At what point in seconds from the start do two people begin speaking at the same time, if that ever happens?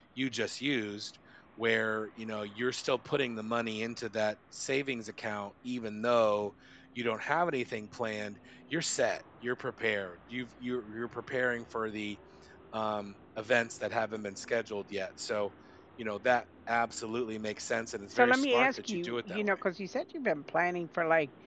18.1 s

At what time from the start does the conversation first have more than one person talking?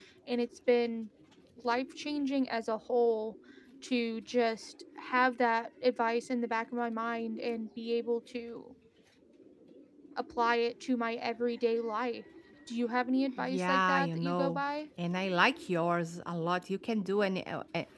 13.4 s

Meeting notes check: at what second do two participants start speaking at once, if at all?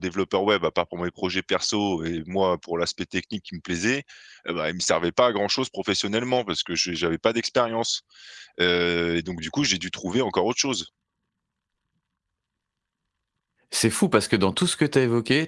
none

